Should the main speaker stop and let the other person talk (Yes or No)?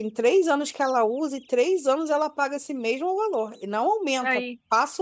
No